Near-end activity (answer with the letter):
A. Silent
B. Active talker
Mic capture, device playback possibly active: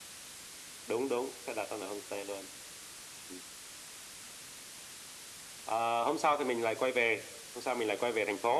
A